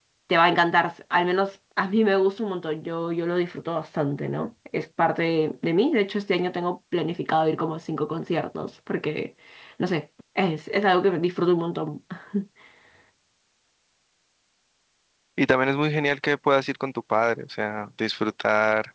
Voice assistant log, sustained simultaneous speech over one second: none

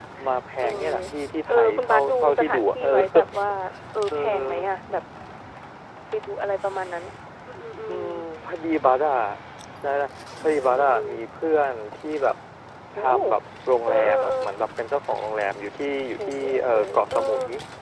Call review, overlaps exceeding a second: present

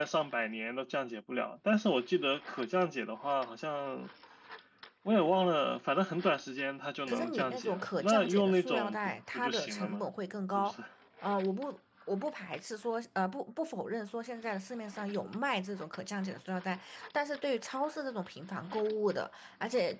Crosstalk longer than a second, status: present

